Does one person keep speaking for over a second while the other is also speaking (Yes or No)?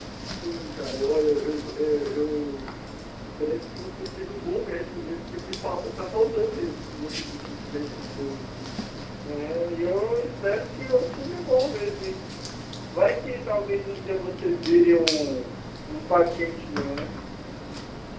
No